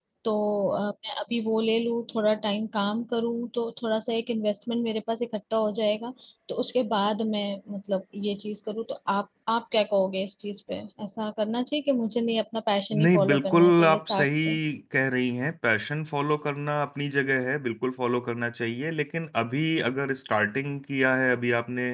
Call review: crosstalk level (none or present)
present